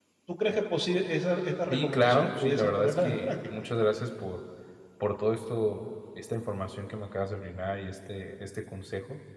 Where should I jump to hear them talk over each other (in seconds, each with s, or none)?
1.7 s